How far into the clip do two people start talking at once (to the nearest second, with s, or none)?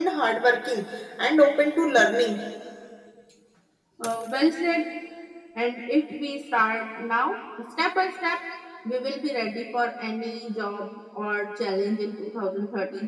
none